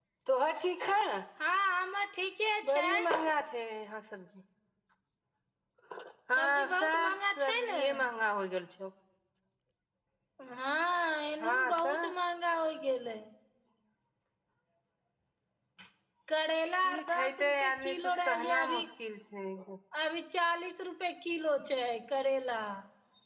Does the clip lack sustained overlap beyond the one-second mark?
No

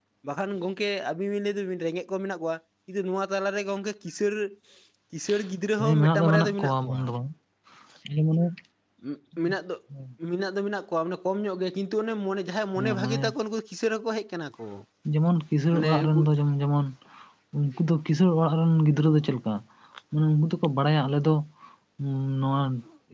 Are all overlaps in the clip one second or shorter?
No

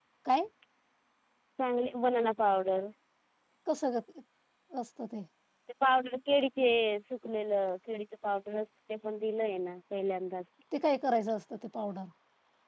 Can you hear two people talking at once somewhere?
No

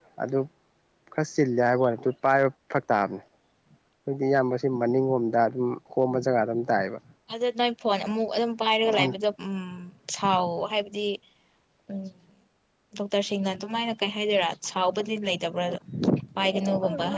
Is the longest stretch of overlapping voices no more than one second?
Yes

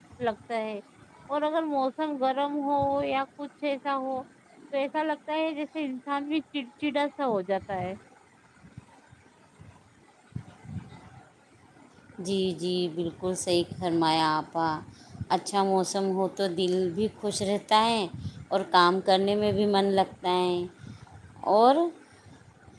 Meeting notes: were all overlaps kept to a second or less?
Yes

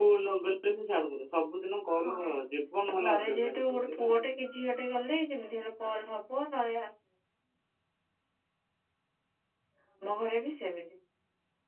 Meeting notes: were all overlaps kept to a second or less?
No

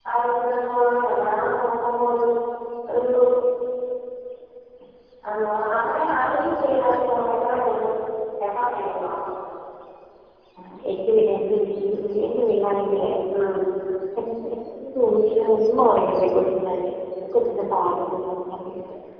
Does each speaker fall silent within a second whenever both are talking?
Yes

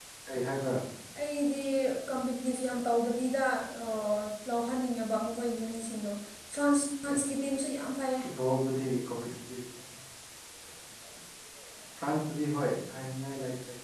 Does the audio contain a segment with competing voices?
No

